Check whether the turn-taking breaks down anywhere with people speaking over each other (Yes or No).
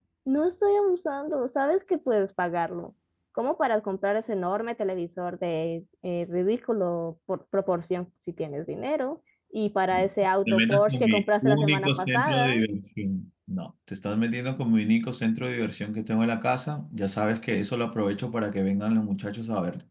Yes